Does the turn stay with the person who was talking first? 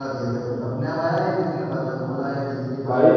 No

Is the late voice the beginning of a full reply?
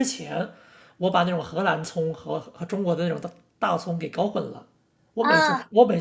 No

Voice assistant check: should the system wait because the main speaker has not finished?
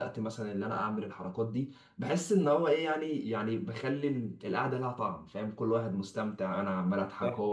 Yes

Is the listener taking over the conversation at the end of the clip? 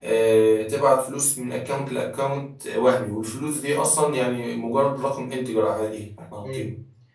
Yes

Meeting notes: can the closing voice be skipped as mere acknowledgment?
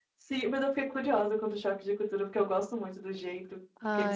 No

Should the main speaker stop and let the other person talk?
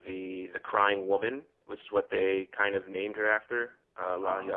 Yes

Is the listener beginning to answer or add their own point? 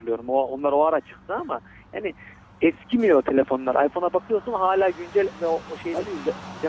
No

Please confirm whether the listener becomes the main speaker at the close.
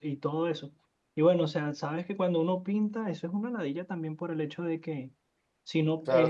Yes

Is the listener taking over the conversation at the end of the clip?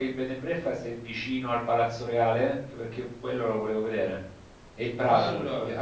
No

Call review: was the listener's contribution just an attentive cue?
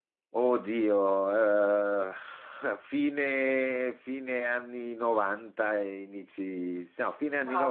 No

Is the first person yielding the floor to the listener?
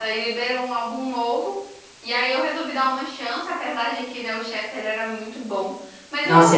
Yes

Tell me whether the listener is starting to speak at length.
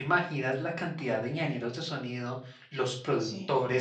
No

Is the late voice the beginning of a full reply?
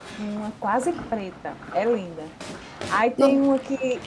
No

